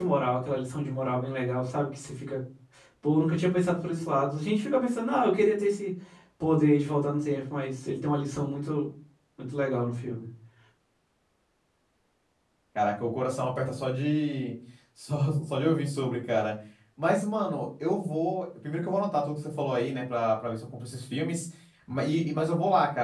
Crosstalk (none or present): none